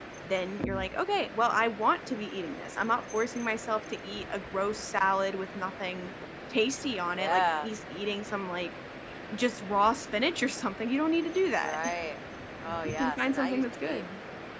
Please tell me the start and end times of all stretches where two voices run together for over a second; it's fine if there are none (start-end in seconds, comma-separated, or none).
12.8-14.0